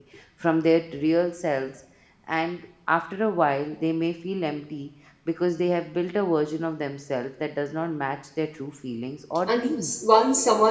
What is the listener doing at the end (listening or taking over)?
taking over